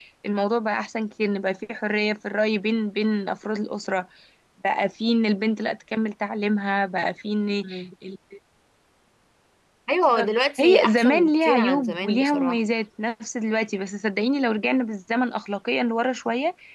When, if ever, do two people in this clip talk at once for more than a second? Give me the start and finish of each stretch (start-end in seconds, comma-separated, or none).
10.6-12.6